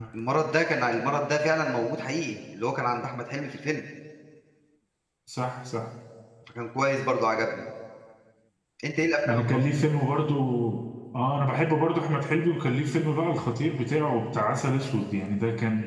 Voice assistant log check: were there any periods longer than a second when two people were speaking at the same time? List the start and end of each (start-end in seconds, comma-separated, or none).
none